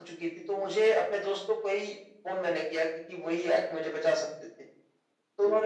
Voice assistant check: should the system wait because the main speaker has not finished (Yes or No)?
Yes